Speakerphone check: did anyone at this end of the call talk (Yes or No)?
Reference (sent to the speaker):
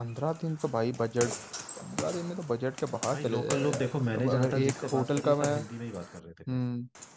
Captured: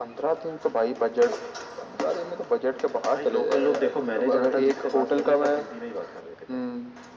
No